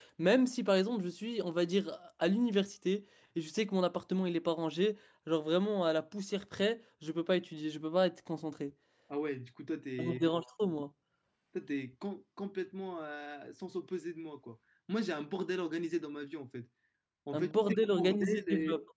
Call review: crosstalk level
present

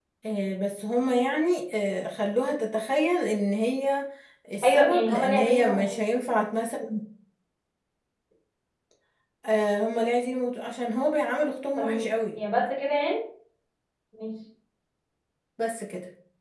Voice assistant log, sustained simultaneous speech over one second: present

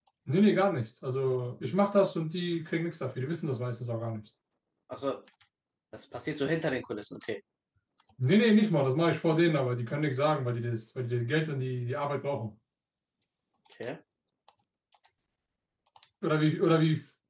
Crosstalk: none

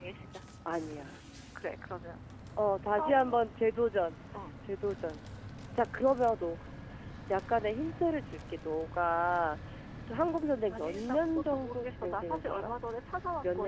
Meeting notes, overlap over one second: present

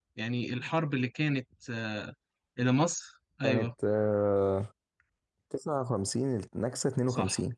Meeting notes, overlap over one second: none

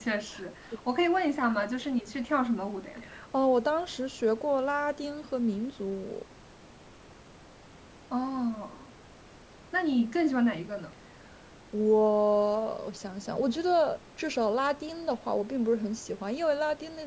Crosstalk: none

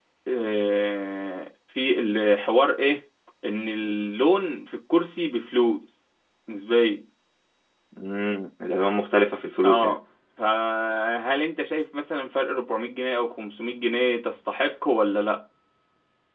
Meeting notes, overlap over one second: none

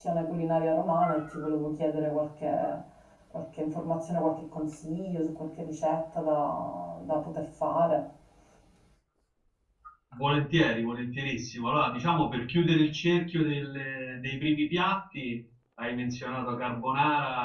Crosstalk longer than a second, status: none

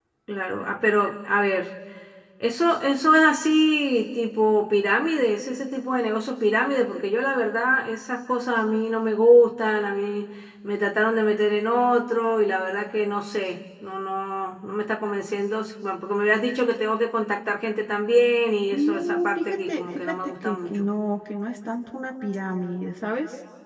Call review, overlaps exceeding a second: present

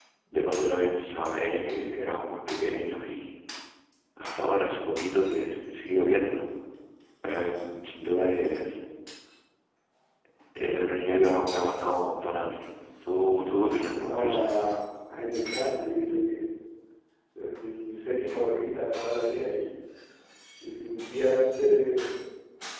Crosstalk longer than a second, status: none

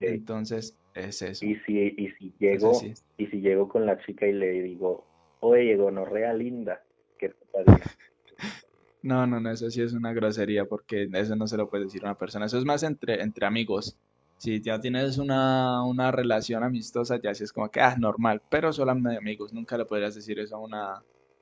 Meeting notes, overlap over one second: none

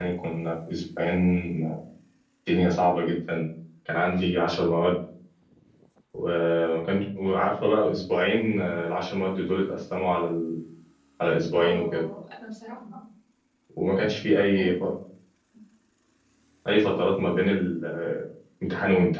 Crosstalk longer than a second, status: none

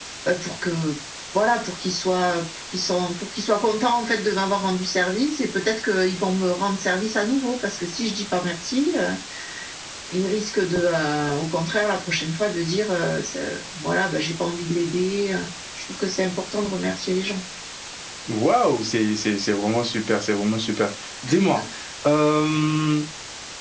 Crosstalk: none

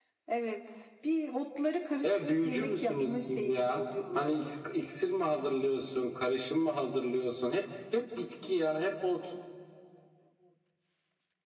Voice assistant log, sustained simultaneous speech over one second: present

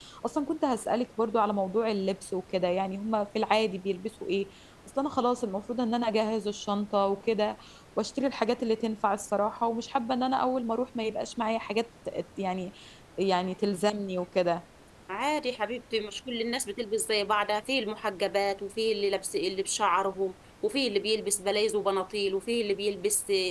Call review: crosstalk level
none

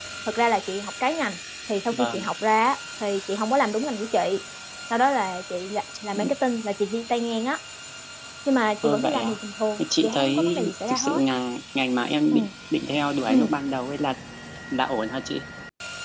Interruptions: present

